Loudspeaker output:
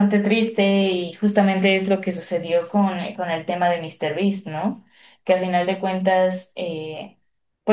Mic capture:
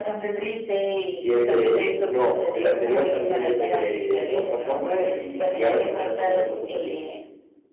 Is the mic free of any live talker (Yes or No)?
No